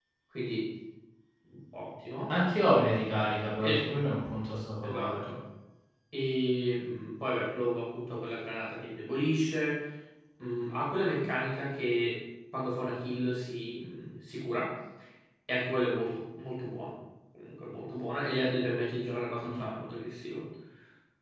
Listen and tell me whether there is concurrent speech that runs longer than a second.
No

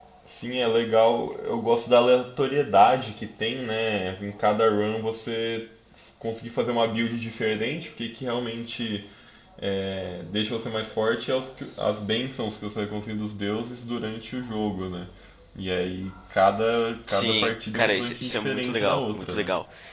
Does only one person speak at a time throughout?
No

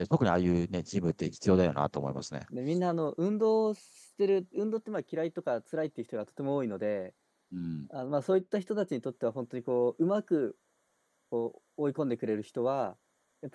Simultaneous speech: No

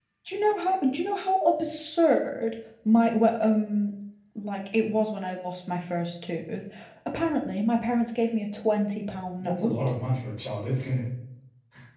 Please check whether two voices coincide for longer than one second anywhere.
No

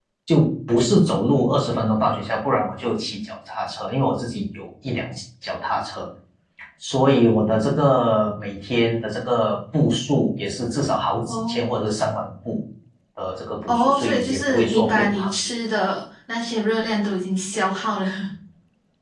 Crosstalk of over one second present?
Yes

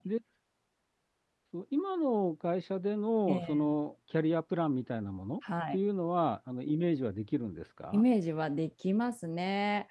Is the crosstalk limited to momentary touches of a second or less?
Yes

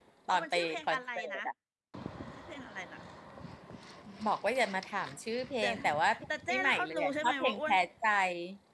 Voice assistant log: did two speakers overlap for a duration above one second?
Yes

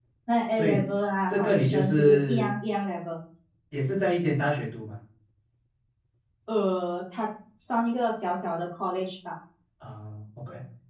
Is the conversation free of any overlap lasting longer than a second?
No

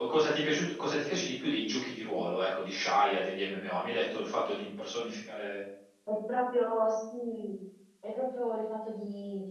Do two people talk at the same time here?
No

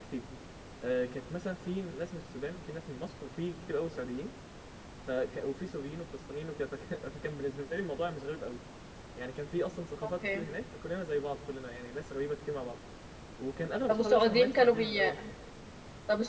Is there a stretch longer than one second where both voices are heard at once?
Yes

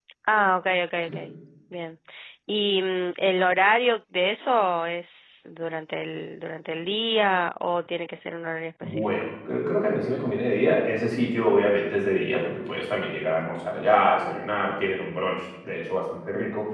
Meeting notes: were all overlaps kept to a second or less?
Yes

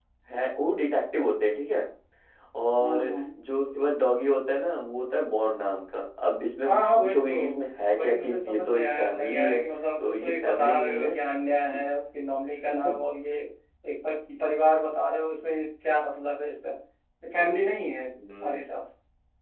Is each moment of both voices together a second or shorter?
No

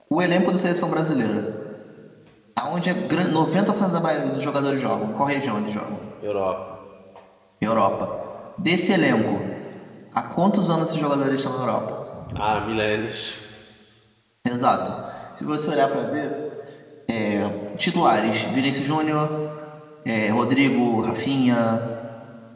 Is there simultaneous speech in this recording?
No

